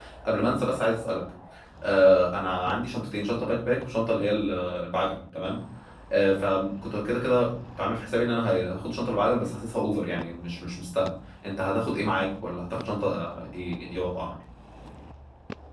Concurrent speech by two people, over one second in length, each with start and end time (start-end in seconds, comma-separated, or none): none